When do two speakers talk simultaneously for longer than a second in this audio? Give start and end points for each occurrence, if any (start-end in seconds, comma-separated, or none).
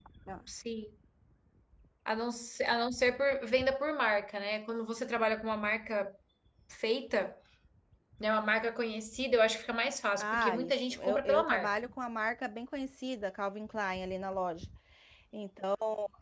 10.2-11.9